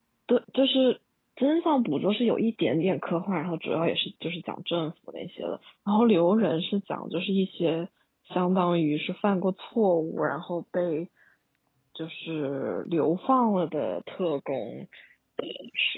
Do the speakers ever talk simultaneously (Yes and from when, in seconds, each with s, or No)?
No